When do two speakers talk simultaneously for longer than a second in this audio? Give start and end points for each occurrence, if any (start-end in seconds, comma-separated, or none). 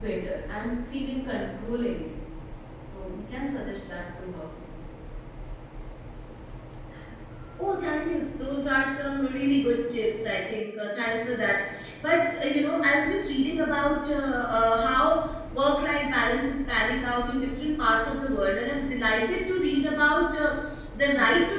none